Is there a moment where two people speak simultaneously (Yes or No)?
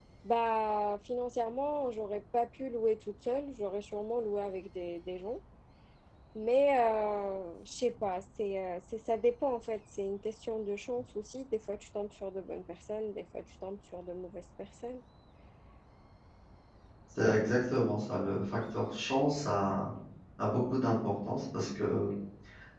No